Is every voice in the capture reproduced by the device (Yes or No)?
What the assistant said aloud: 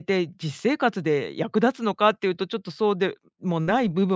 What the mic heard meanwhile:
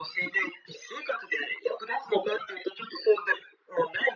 Yes